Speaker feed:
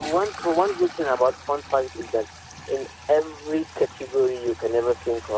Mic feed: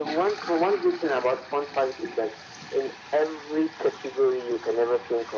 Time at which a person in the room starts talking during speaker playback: none

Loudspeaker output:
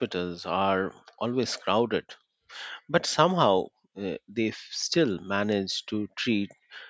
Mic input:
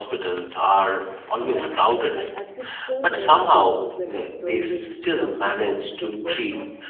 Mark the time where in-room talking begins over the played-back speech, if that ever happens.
1.5 s

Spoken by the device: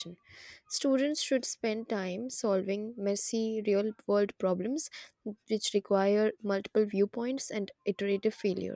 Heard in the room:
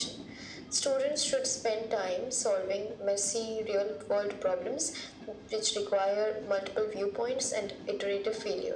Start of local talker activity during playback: none

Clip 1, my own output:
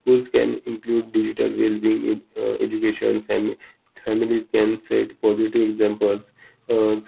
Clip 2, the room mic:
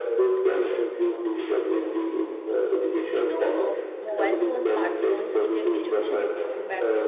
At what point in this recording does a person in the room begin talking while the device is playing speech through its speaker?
3.1 s

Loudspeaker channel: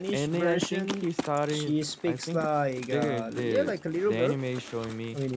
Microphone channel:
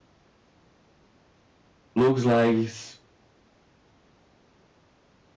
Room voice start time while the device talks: 1.9 s

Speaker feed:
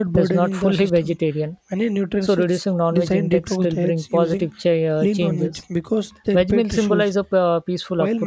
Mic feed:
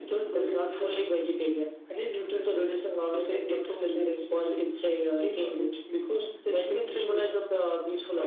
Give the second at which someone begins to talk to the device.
none

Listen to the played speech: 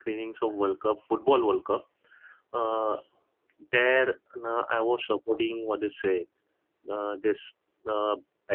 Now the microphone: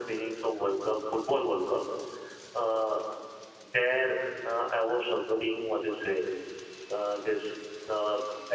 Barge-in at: none

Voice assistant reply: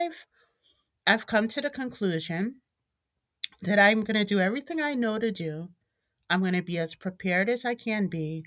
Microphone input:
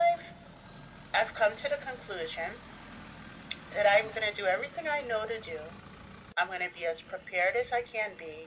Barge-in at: none

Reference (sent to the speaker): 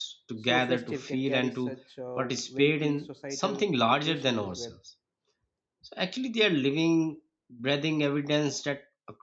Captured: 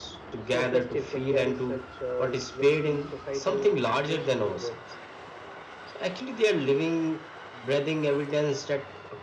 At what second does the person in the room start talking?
none

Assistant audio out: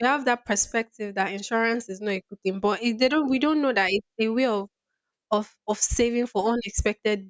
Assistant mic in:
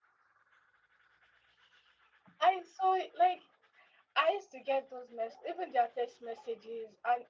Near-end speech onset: 2.4 s

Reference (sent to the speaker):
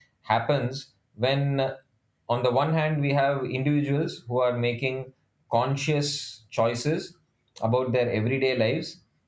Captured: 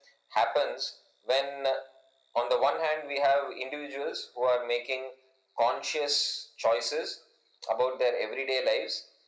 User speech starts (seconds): none

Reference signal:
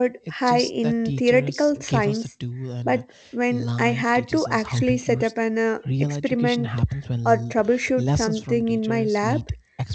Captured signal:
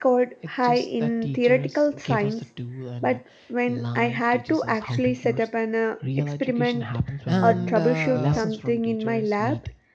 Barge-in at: 7.2 s

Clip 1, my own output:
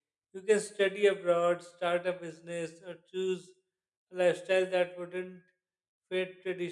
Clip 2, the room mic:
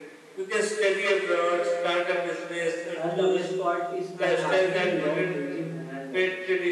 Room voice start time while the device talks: 2.9 s

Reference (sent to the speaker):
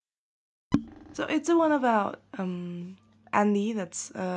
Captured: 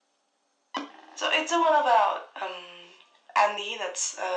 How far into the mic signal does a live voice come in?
none

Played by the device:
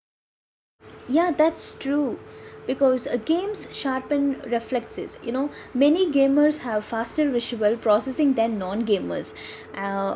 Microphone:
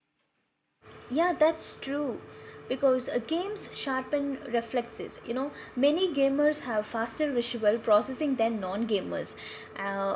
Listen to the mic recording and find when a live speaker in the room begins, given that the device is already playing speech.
none

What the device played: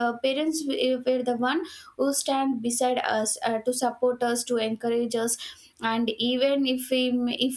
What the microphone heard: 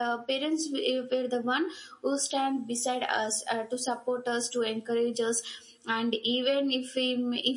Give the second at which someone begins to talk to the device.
none

